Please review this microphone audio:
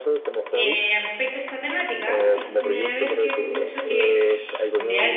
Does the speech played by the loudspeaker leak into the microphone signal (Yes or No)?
Yes